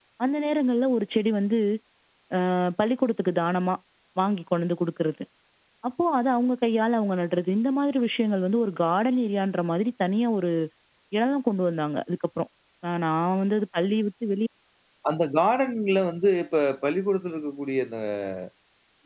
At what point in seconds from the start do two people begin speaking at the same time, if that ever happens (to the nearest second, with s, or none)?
none